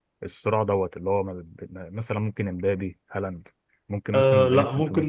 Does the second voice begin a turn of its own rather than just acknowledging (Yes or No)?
Yes